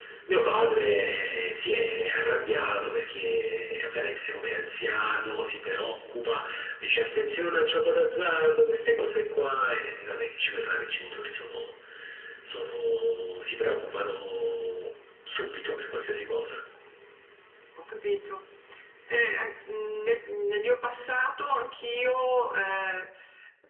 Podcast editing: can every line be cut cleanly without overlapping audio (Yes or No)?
Yes